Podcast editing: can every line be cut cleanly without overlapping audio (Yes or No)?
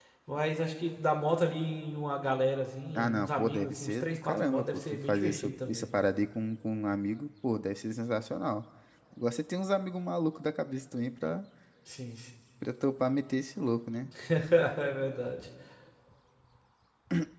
No